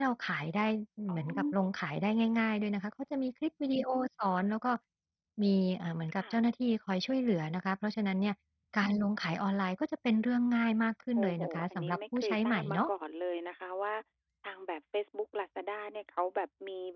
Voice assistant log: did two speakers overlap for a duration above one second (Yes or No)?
Yes